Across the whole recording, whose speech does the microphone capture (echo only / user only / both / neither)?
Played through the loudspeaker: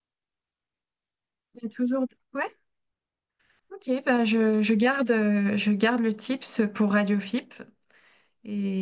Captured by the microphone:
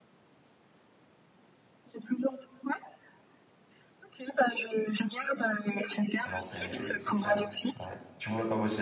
both